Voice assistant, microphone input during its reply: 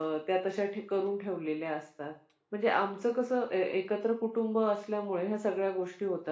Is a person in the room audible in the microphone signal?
Yes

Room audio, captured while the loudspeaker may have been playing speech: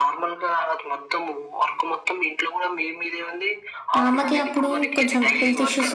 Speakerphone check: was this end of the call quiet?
No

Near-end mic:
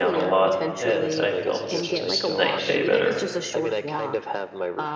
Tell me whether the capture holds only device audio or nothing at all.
No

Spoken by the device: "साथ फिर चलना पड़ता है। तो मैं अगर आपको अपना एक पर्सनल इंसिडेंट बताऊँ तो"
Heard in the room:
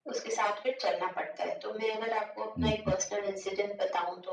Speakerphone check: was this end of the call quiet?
No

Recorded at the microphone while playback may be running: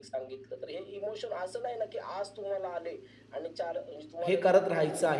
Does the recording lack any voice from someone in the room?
No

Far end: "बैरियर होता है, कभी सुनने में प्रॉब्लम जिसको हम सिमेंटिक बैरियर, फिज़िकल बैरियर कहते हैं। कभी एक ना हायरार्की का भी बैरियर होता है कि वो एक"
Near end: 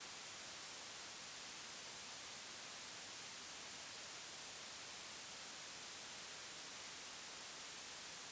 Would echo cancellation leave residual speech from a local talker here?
No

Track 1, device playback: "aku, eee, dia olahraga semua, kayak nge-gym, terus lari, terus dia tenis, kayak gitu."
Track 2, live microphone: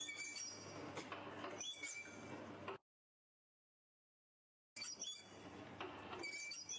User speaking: No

